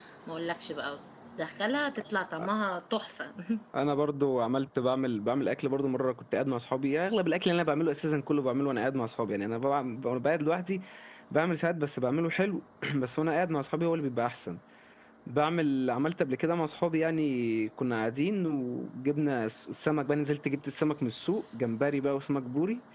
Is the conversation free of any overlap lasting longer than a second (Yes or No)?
Yes